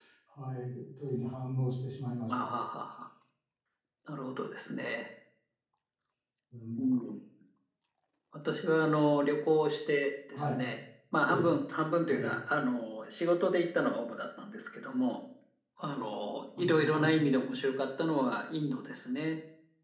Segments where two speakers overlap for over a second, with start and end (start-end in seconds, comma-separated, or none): none